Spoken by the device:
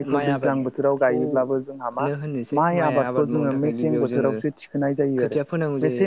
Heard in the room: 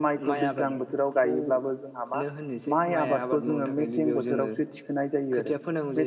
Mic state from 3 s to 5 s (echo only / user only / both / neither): echo only